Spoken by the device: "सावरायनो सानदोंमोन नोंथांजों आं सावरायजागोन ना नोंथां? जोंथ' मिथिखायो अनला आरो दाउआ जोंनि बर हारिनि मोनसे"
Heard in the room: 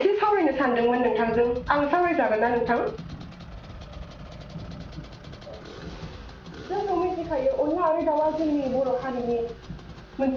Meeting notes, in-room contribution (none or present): none